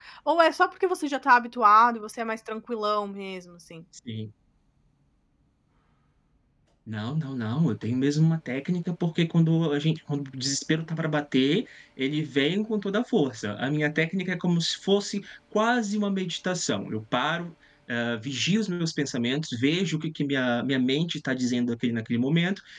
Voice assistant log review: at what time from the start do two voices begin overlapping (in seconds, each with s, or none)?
none